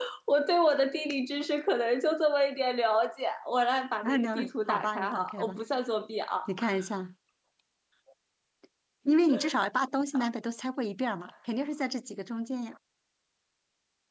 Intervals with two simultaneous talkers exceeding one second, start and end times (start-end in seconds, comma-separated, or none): 4.0-5.5